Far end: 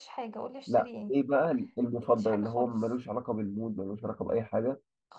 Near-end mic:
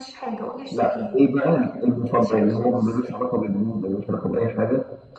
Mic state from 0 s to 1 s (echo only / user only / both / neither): echo only